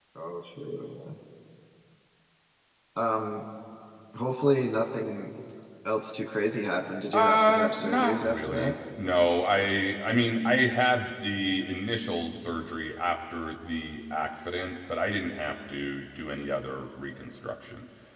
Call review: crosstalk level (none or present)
present